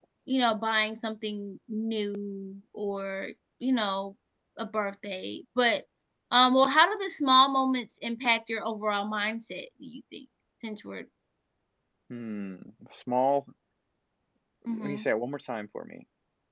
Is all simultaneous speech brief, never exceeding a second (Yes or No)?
Yes